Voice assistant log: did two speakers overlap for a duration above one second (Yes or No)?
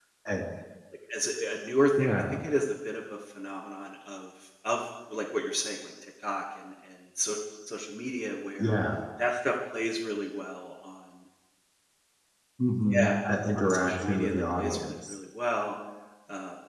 Yes